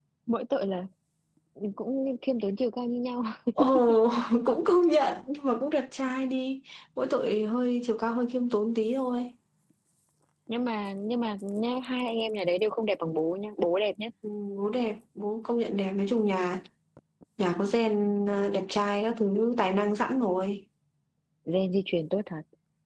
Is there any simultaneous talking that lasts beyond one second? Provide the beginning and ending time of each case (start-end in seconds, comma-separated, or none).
none